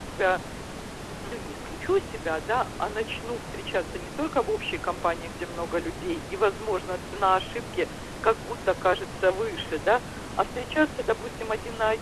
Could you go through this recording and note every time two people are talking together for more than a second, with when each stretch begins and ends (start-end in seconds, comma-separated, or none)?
none